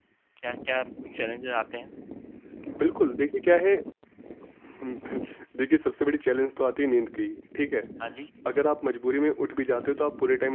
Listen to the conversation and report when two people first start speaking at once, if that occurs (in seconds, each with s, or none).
none